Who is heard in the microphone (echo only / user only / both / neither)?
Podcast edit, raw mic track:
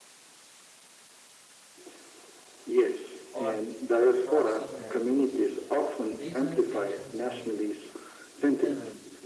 both